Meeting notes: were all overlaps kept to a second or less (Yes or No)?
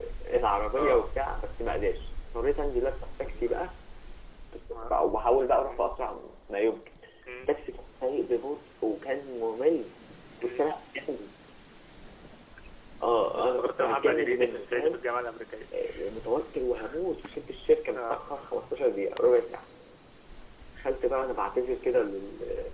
No